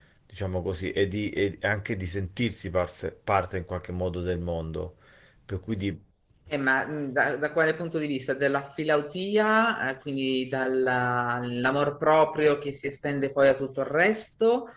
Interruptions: none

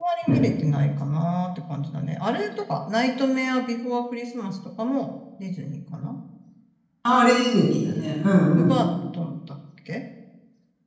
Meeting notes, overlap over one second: none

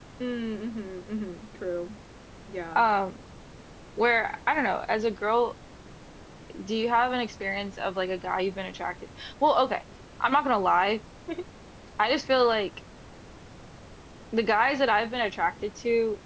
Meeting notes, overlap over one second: none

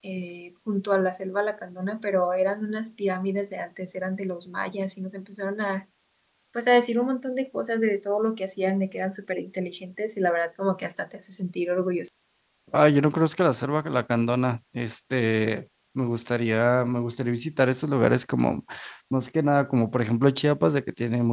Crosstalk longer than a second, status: none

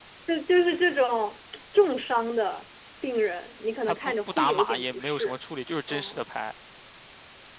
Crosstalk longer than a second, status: present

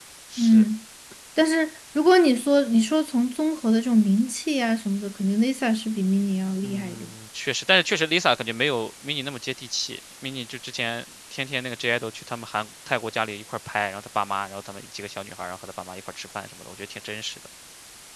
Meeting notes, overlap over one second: none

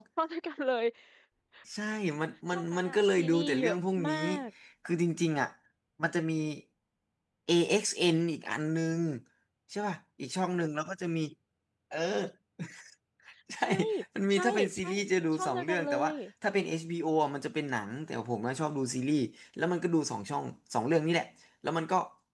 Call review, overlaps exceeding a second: present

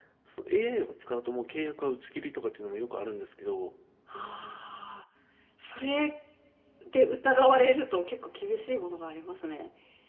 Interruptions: none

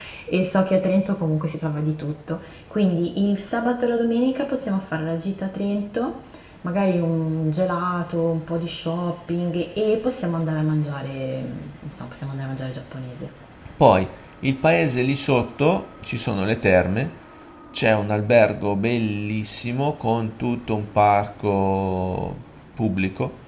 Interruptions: none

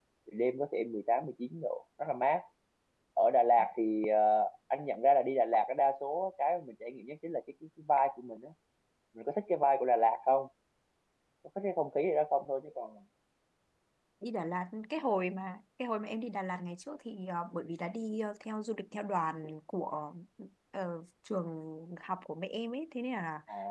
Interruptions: none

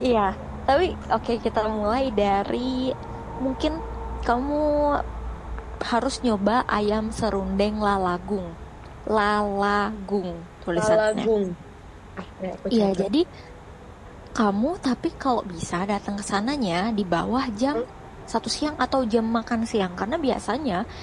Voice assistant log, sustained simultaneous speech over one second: none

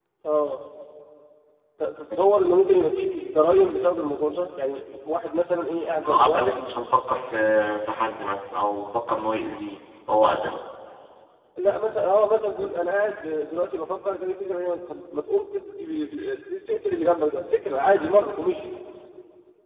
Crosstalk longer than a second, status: none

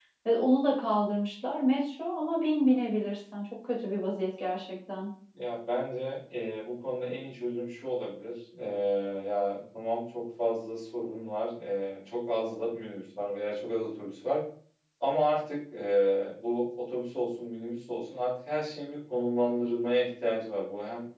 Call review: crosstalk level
none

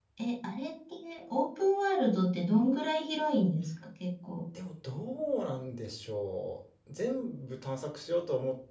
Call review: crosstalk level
none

